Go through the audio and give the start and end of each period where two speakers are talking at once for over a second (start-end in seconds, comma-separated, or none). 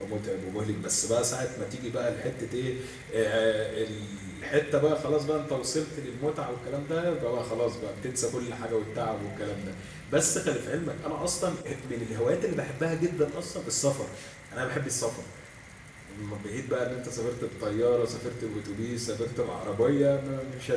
none